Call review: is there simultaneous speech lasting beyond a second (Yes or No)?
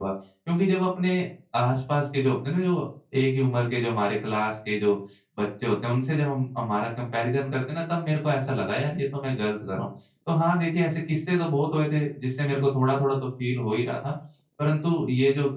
No